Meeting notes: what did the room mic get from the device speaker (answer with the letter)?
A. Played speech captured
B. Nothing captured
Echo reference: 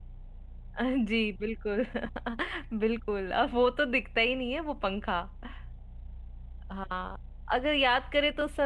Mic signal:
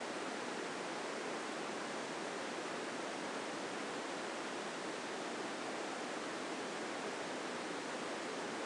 B